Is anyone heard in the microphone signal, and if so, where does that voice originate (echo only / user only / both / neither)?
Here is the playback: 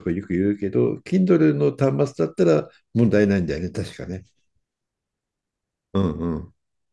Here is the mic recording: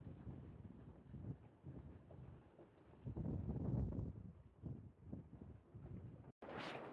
neither